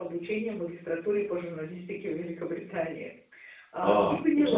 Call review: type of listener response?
taking over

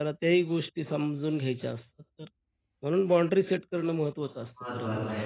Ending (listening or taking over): taking over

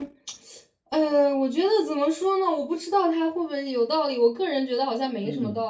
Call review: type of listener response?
listening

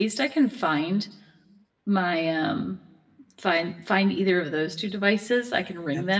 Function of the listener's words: listening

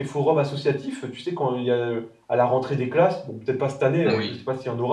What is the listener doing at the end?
listening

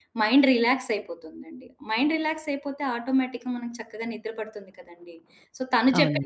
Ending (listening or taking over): listening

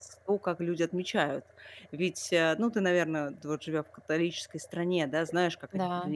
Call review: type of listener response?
listening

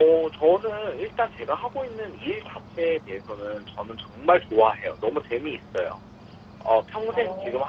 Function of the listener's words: listening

